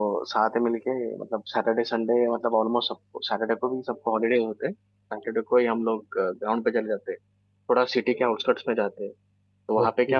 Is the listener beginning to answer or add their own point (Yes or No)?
No